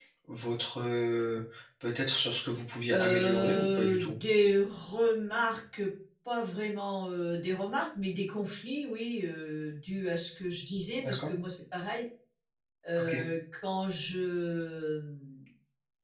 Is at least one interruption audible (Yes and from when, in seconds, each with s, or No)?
Yes, from 2.9 s